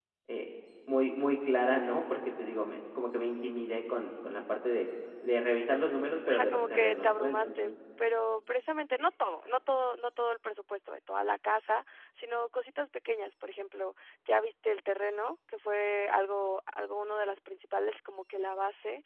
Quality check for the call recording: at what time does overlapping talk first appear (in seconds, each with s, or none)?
6.3 s